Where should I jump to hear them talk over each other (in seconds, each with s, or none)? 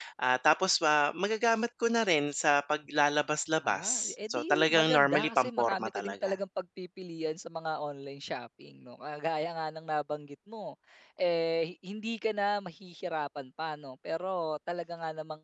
3.6 s